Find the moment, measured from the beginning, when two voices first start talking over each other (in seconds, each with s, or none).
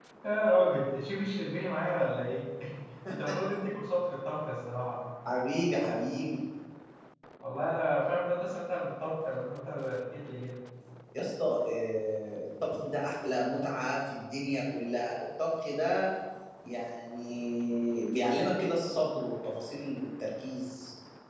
none